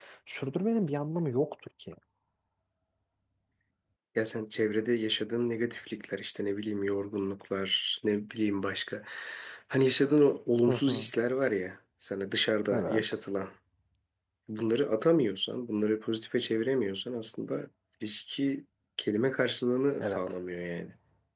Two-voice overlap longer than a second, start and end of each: none

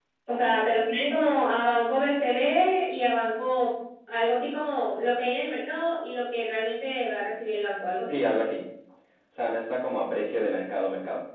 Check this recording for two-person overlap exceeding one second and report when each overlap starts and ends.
none

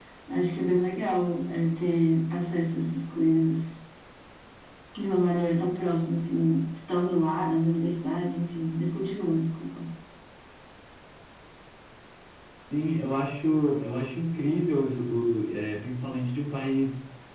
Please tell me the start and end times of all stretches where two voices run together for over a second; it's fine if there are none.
none

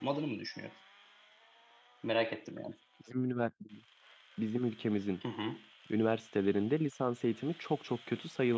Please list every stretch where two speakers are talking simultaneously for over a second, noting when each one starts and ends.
none

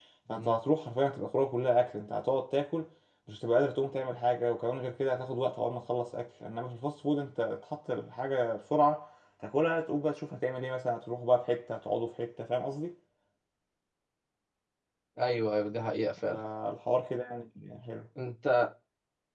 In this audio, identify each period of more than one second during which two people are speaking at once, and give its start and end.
none

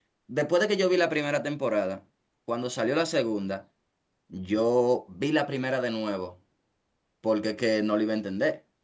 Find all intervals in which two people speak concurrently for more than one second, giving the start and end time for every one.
none

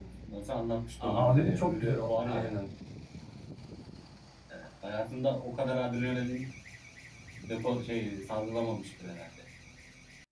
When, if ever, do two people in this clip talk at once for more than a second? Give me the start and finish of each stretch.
1.0-2.5

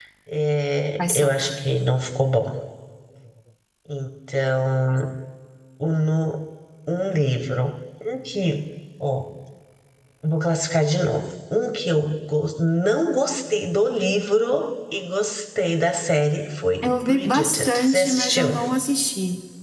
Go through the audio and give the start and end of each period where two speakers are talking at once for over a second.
16.8-18.6

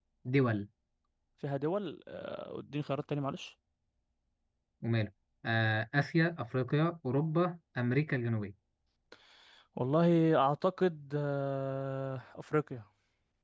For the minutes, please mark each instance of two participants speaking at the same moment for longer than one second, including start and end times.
none

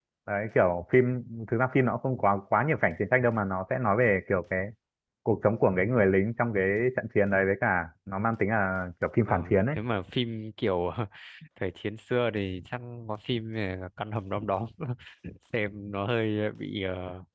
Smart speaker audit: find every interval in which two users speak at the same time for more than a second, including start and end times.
none

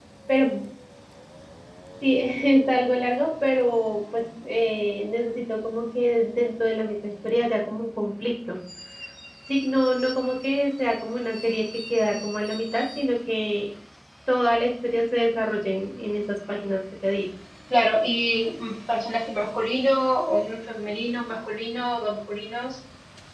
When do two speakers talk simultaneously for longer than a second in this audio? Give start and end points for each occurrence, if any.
none

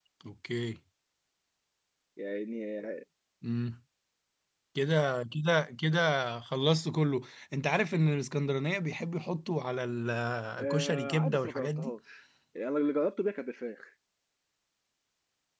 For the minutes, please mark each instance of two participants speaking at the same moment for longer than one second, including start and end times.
10.6-11.9

